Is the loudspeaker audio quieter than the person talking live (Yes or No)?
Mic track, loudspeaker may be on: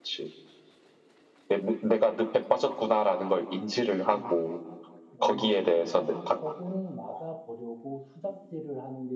No